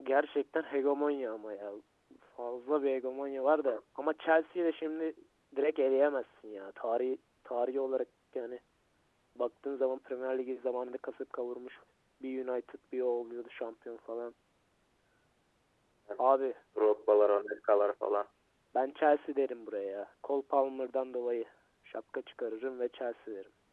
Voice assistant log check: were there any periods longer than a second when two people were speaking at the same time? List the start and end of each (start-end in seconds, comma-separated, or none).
none